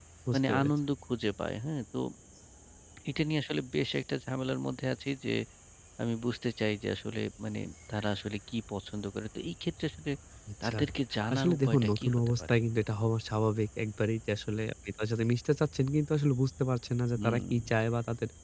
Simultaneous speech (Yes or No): Yes